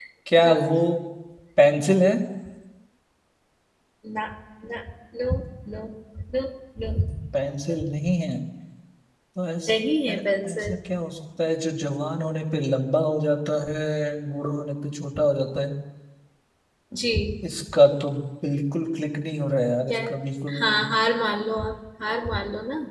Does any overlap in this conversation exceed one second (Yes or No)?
No